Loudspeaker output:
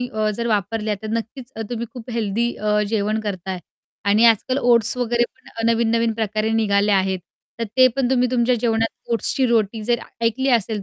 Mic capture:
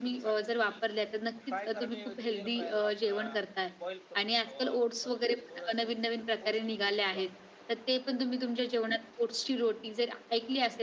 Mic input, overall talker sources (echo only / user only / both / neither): both